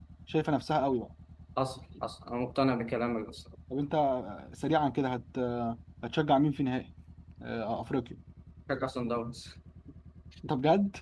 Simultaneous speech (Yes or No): No